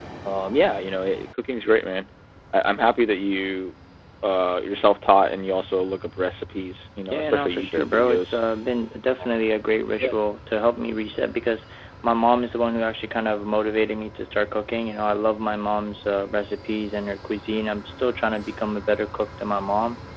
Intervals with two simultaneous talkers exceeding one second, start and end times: 7.1-8.4

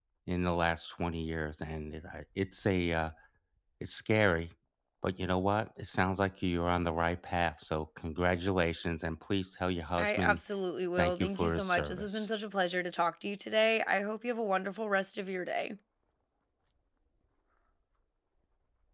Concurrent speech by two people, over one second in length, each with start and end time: 11.0-12.3

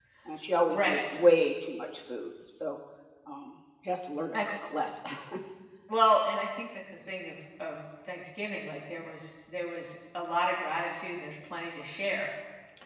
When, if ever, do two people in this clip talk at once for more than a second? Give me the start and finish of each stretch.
none

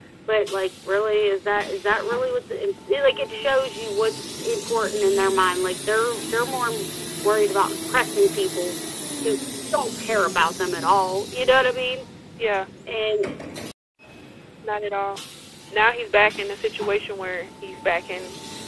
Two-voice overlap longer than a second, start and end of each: none

